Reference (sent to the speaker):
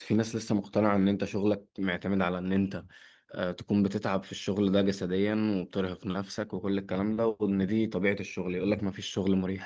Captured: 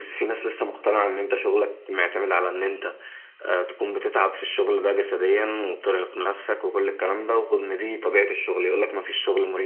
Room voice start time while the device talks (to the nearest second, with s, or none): none